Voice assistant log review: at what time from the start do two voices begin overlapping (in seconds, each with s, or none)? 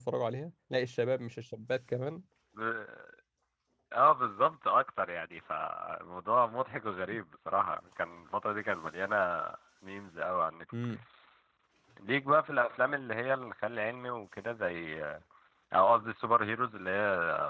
none